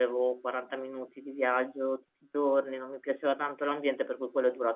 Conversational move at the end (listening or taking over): listening